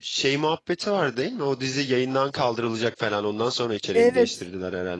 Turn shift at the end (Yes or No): Yes